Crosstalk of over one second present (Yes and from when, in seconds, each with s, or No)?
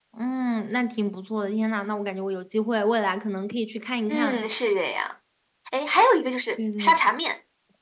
No